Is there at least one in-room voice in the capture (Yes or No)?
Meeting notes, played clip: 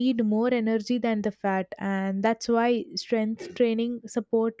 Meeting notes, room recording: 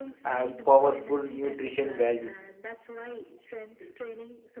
Yes